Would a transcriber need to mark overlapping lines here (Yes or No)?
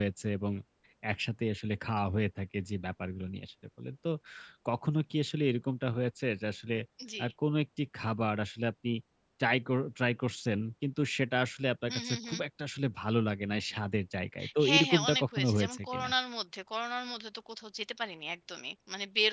Yes